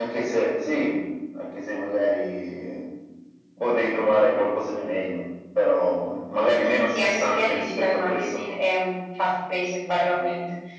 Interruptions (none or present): present